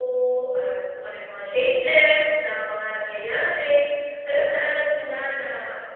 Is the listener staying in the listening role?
Yes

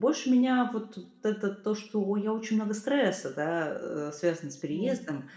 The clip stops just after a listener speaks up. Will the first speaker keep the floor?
Yes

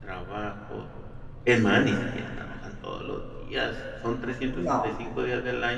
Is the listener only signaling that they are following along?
Yes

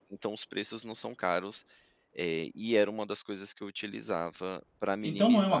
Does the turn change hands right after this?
Yes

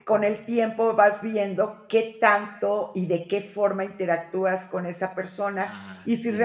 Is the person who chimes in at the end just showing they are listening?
Yes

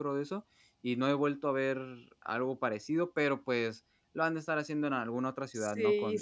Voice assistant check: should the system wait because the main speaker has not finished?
No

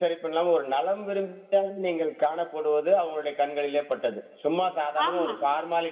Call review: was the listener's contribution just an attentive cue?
Yes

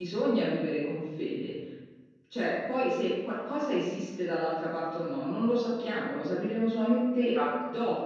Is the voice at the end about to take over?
No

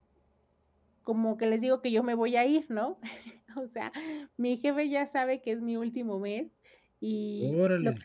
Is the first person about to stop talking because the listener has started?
No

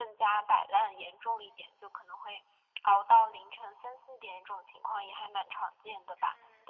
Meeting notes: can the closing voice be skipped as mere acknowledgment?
No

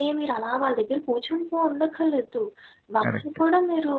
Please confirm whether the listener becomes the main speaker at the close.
No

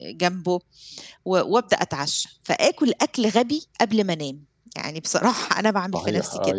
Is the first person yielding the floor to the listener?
Yes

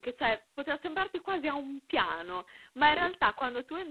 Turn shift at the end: No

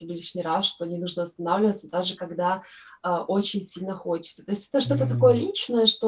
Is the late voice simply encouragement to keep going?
Yes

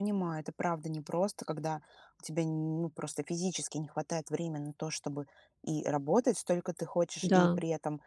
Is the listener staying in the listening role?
Yes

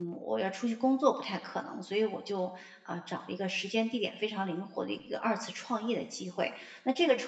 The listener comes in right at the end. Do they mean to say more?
No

